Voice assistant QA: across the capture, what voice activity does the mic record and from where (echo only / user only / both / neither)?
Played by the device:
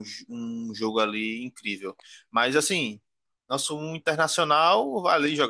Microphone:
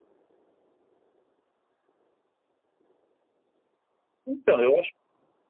user only